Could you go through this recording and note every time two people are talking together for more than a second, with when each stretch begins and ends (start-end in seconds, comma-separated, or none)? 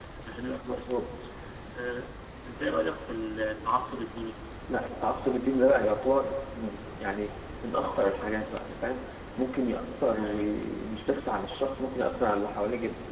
none